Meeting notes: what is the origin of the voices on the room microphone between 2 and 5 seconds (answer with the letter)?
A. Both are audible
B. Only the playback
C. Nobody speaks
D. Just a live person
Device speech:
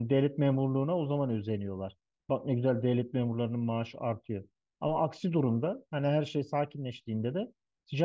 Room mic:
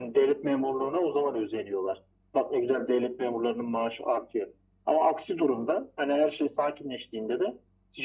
B